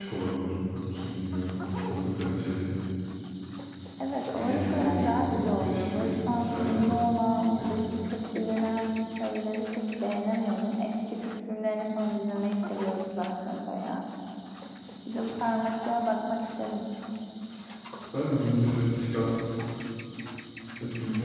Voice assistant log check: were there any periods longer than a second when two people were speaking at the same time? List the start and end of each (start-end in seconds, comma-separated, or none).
4.4-6.8